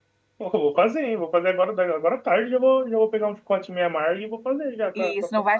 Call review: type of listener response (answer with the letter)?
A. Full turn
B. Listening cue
A